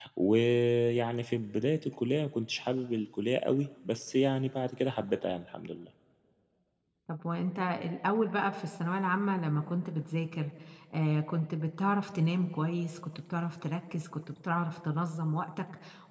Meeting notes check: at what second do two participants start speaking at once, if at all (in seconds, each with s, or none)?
none